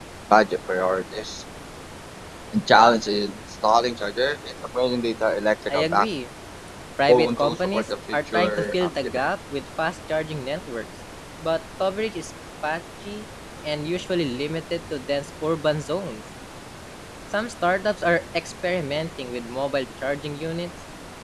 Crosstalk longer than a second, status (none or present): present